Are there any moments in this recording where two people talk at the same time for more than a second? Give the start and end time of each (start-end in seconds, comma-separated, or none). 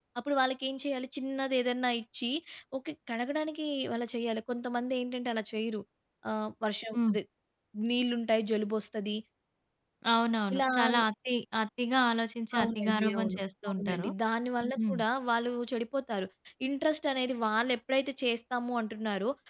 12.6-14.1